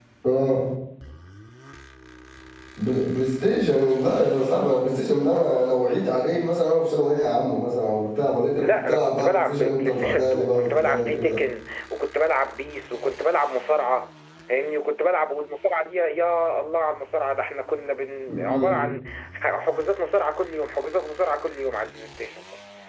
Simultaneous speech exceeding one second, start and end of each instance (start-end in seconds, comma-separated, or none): 8.6-11.4